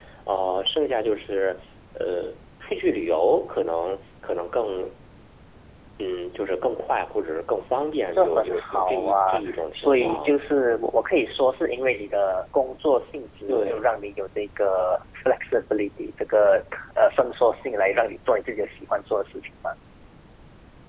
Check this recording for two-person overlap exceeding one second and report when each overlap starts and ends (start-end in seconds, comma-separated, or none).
8.1-10.3